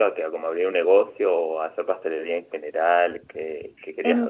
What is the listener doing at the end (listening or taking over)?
taking over